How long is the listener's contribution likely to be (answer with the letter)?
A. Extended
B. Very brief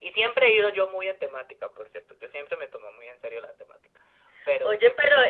A